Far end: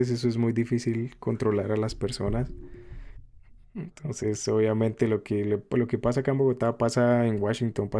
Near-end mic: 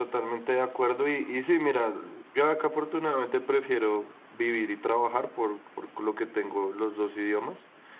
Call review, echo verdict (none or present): none